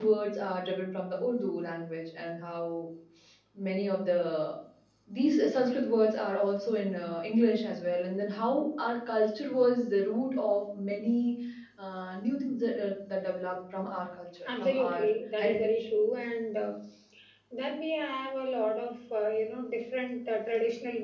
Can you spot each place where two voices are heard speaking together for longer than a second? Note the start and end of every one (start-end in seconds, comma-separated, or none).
14.4-15.7